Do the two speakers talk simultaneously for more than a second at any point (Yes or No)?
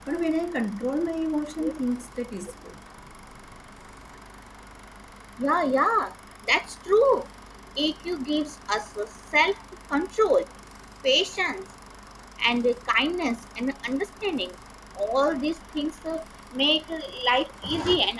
No